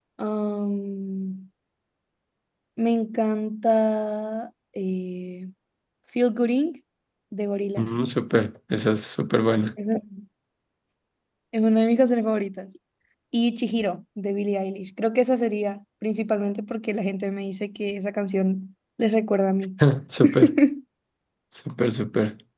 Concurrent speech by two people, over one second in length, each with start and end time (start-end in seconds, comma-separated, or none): none